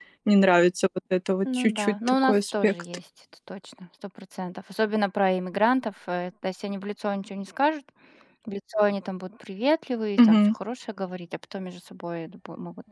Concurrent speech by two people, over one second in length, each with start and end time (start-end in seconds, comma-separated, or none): 1.6-2.8